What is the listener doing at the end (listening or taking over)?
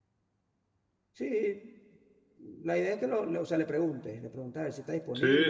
taking over